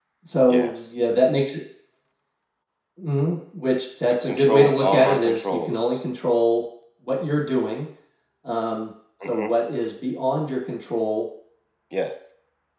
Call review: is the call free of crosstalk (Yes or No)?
No